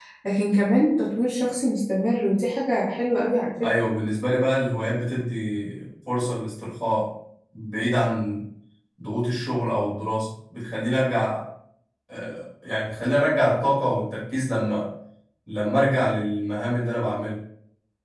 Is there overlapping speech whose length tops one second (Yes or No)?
No